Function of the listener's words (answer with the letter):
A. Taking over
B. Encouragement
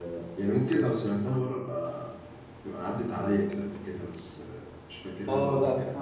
A